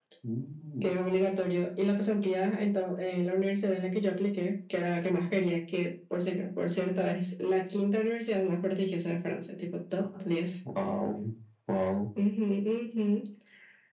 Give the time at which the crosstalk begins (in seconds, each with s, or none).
none